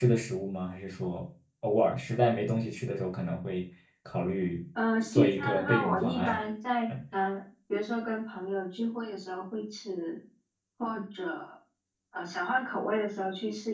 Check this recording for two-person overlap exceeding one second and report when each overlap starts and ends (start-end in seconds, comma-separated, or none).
5.1-6.4